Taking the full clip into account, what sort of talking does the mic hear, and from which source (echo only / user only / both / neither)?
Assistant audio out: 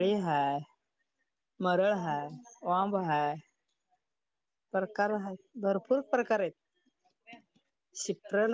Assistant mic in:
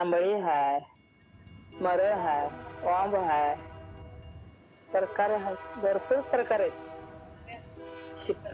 echo only